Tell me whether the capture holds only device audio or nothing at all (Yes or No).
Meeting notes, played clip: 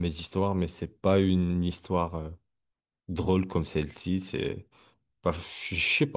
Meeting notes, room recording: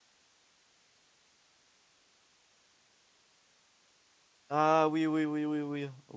No